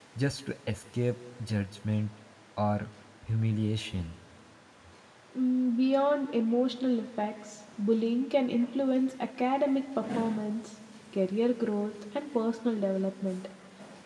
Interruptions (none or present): none